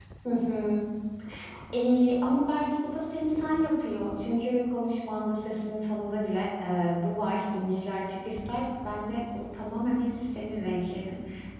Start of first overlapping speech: none

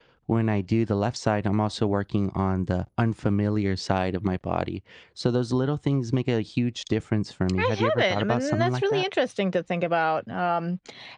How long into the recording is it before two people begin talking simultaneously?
7.6 s

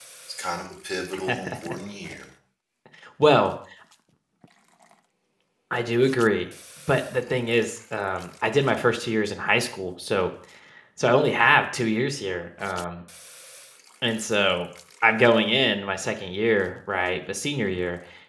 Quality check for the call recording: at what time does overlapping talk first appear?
none

